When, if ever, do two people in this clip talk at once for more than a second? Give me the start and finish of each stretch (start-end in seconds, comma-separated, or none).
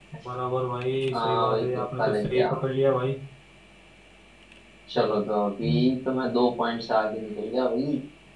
1.1-2.5